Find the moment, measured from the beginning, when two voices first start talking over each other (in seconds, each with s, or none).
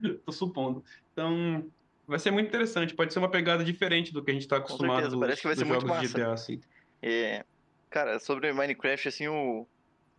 4.7 s